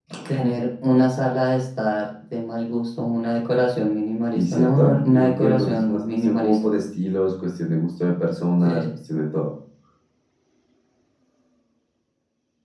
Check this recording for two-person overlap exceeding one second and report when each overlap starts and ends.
4.3-6.6

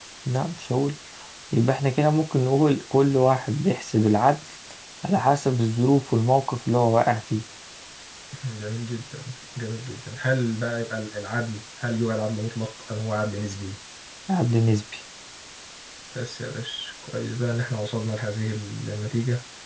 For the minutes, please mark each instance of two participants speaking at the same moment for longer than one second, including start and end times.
none

